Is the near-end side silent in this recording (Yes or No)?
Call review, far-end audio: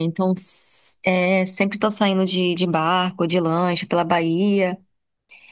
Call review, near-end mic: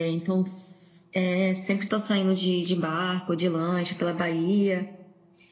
Yes